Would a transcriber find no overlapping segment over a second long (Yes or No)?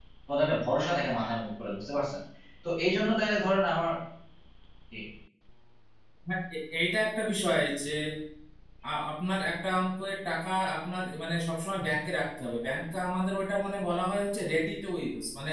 Yes